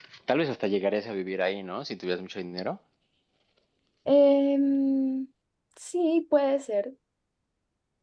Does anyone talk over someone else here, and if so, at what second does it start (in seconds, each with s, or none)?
none